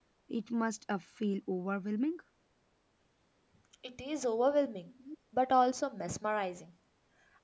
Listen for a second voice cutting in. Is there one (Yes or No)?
No